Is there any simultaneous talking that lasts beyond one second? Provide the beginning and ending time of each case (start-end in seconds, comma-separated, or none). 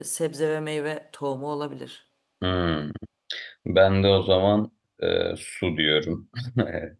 none